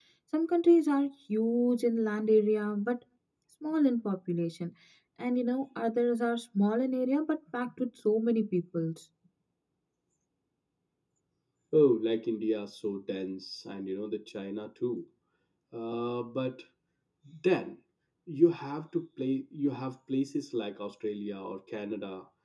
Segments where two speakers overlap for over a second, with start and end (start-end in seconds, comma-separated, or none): none